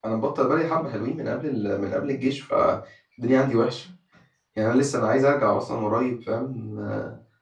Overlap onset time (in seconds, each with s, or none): none